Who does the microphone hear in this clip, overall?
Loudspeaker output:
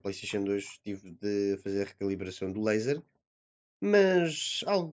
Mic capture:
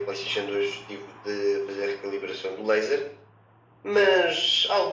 echo only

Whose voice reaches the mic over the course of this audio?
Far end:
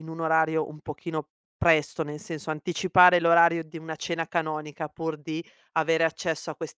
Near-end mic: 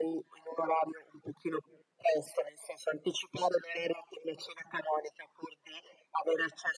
echo only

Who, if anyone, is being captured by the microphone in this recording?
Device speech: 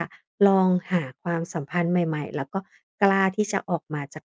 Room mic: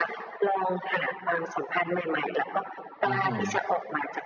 both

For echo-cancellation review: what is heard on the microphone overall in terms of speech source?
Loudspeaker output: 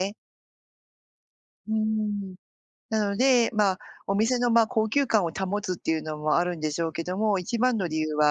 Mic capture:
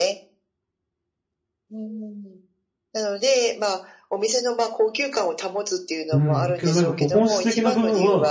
both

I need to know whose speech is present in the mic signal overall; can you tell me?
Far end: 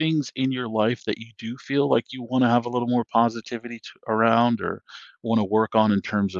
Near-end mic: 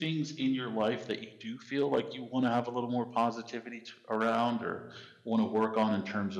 echo only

